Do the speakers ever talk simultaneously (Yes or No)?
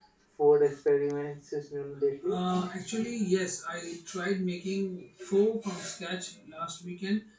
No